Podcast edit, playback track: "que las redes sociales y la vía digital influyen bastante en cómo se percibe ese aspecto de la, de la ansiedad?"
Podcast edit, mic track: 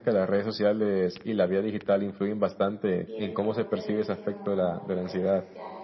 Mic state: both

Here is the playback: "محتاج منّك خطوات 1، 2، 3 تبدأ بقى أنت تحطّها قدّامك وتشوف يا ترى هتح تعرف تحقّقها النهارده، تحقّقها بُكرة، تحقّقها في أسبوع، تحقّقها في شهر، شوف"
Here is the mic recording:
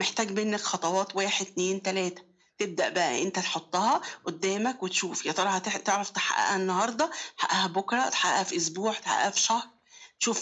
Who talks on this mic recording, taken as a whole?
echo only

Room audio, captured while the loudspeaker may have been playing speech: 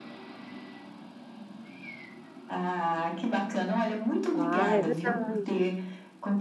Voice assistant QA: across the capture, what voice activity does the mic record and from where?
both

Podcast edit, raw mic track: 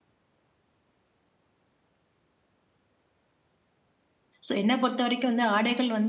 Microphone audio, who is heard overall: user only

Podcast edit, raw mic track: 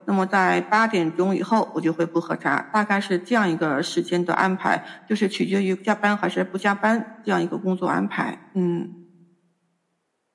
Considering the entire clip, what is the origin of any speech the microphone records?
echo only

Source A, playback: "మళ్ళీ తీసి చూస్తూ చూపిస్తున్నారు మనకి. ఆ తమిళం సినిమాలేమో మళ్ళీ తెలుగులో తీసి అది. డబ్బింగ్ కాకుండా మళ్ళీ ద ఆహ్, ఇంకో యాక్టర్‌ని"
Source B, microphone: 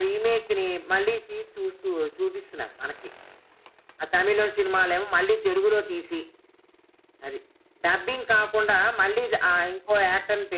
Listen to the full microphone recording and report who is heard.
echo only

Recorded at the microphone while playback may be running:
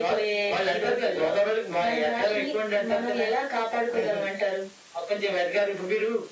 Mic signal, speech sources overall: echo only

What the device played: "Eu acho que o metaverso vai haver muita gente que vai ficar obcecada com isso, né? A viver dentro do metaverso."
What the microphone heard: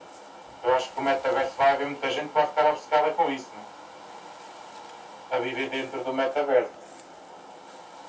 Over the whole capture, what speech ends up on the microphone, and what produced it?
echo only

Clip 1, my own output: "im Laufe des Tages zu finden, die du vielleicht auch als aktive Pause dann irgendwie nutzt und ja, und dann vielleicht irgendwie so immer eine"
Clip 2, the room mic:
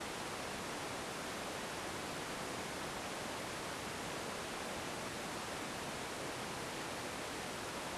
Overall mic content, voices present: neither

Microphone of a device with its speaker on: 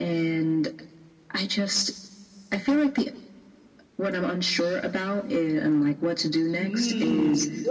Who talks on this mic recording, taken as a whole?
both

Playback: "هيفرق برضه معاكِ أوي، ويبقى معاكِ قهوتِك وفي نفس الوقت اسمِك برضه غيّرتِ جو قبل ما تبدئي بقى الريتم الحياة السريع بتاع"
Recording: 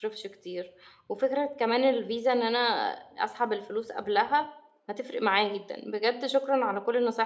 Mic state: user only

